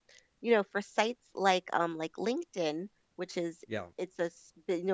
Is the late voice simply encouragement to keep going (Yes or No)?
Yes